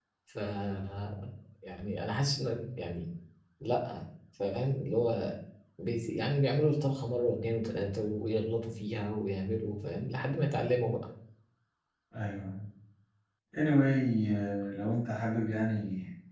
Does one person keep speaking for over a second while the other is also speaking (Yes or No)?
No